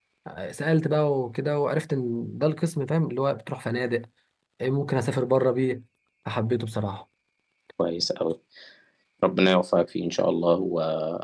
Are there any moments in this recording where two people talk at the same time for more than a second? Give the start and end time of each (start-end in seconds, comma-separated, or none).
none